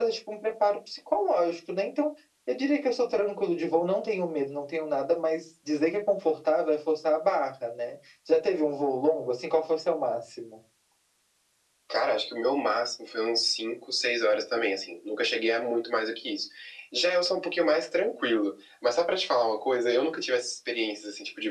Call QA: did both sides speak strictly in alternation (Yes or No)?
Yes